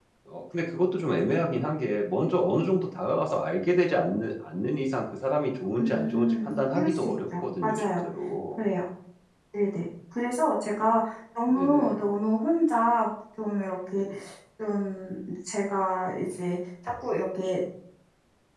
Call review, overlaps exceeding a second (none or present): present